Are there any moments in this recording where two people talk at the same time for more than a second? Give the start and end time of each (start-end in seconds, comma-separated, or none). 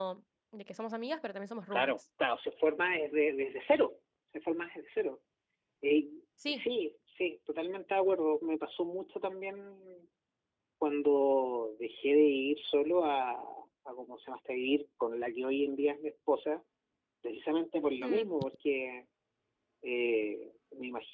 none